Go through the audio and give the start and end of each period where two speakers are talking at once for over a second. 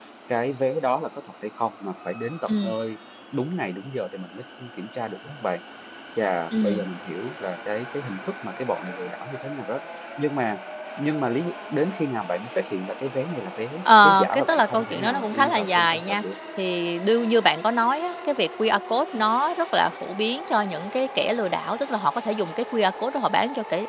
14.0-16.2

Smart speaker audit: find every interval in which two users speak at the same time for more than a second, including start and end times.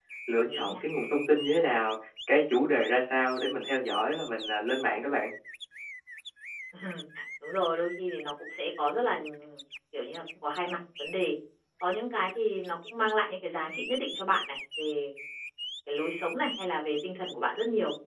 none

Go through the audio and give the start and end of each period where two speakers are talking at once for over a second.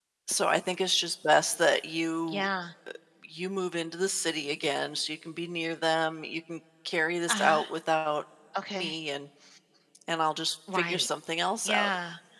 none

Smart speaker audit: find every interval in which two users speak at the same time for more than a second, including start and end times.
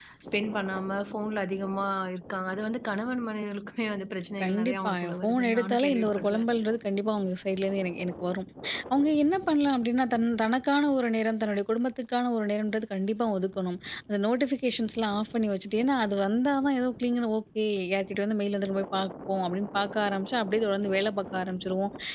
4.4-6.4

